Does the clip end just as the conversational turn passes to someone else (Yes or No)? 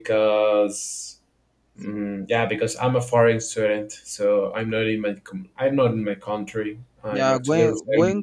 Yes